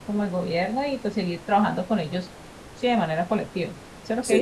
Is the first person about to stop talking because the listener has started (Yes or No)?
Yes